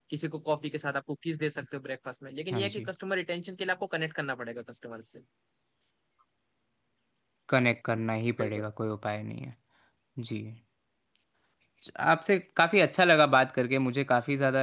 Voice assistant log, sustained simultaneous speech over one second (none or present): none